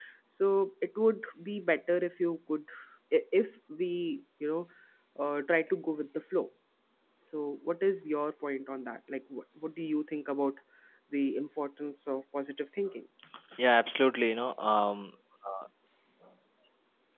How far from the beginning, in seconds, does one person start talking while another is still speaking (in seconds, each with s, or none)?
none